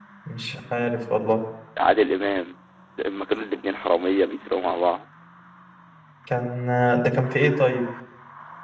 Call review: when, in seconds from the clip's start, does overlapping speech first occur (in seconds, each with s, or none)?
none